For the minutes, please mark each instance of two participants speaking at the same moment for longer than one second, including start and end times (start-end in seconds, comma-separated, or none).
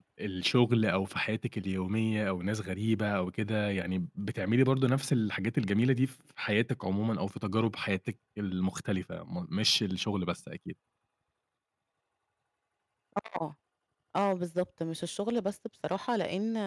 none